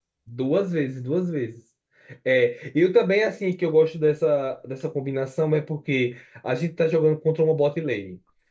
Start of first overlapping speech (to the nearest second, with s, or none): none